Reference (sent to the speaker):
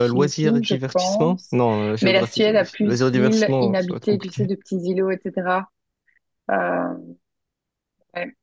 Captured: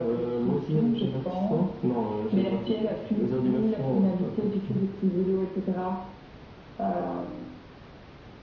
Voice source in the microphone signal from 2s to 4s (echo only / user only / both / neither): echo only